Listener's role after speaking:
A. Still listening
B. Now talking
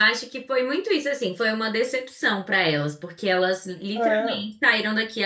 A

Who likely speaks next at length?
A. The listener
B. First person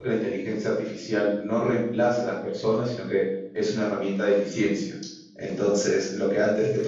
B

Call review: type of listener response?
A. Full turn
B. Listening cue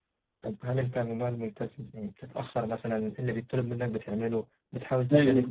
A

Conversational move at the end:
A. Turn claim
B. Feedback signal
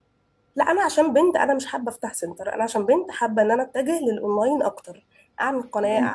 B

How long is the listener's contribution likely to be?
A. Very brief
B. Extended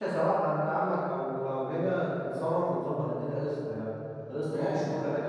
B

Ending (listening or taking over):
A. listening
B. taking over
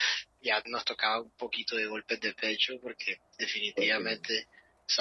A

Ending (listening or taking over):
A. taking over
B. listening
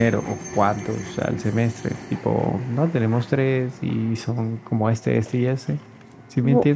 A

